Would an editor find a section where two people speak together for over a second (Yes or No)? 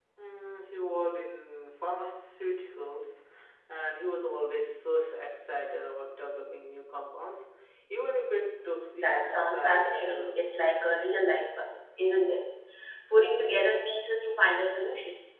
Yes